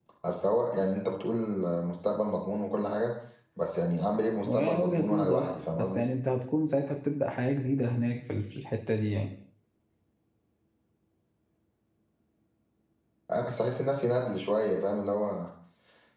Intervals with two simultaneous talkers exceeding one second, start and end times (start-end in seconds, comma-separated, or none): 4.5-6.0